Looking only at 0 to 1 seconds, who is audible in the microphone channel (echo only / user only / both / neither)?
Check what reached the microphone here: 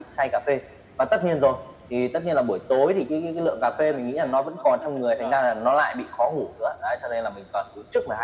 echo only